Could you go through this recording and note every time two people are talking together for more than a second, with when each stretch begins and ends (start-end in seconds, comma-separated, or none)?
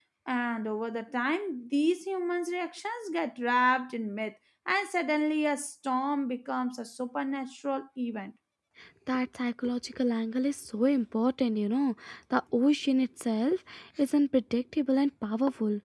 none